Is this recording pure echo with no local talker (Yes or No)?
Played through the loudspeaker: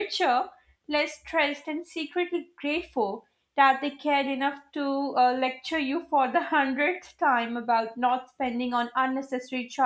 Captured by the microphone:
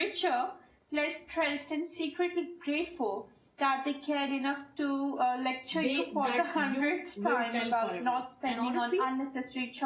No